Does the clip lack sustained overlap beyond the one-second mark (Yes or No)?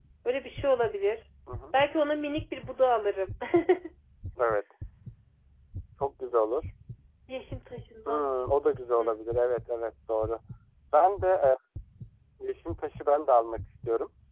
Yes